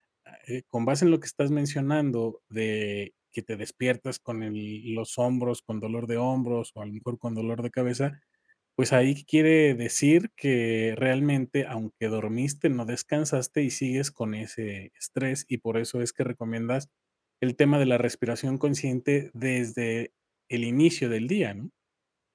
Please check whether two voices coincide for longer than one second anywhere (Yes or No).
No